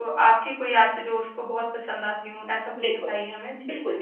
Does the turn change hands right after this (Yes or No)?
Yes